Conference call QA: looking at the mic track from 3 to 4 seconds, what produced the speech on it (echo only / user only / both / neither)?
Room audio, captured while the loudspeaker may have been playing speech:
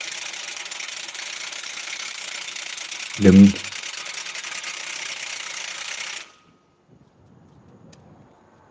user only